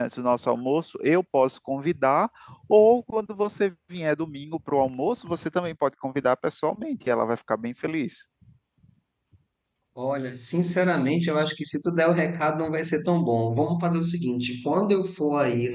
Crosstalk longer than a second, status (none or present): none